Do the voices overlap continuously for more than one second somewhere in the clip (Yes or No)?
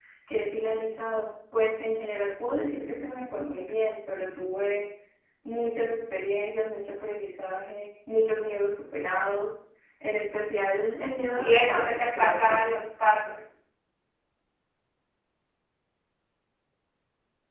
Yes